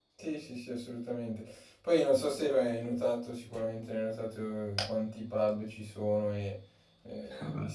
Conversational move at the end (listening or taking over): listening